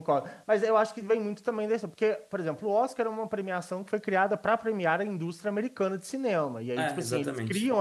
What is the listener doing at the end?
listening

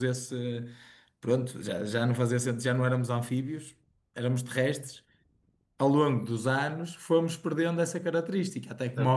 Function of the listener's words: taking over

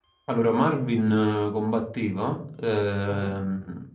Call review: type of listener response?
listening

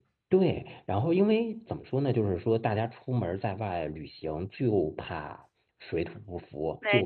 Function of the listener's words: listening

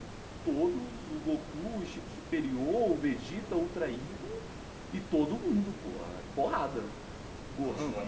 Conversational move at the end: taking over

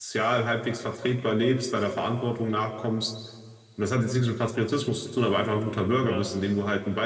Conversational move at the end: listening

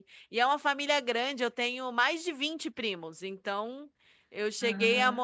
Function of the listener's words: listening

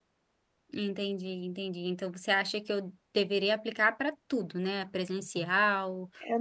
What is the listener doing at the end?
taking over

